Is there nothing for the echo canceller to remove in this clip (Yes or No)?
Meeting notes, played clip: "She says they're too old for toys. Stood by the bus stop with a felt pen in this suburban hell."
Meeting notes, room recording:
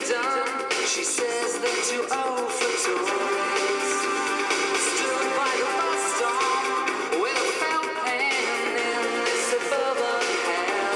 No